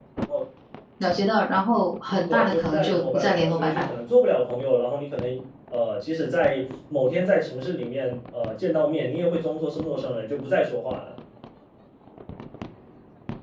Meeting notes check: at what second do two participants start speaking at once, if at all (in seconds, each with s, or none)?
2.3 s